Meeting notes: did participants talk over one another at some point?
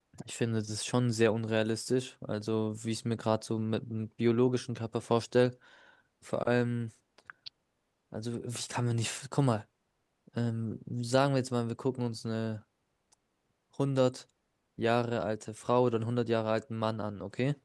No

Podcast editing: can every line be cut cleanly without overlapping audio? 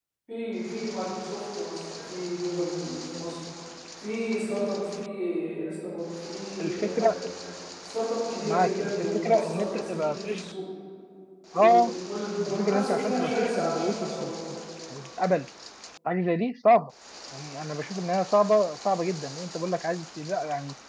No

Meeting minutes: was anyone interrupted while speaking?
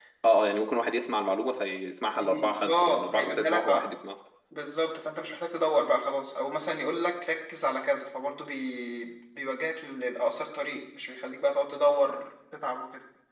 Yes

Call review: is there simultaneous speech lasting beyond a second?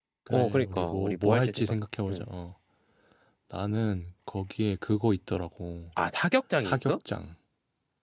Yes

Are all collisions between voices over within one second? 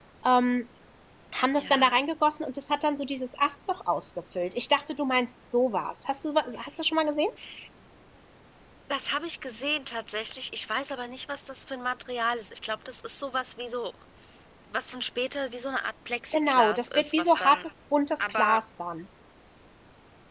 No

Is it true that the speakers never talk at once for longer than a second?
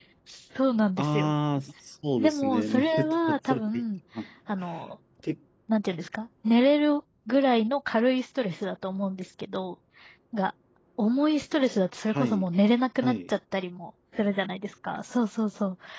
No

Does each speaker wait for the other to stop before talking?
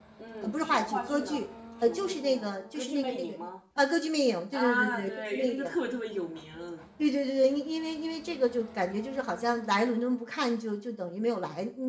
No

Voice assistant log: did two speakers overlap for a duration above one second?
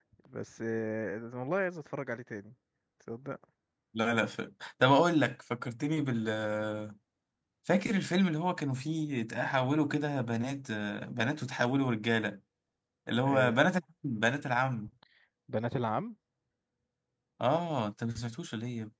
No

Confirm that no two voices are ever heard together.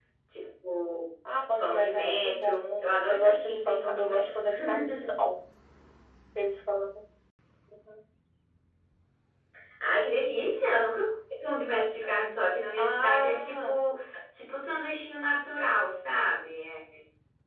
No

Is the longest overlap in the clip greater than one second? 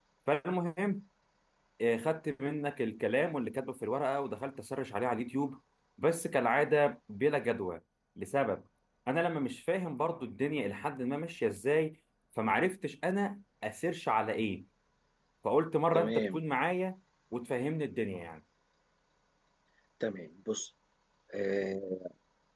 No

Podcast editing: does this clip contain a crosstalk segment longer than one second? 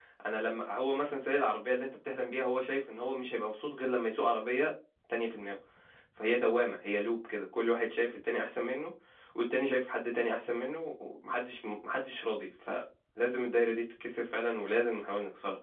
No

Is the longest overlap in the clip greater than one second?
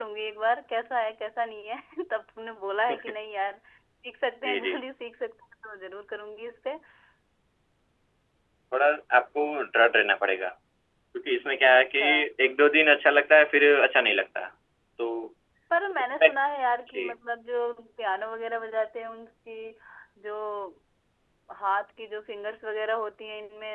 No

